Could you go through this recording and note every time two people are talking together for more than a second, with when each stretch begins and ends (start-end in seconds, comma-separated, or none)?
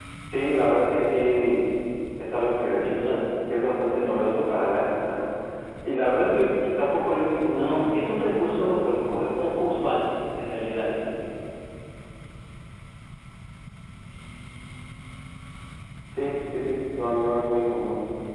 7.5-8.7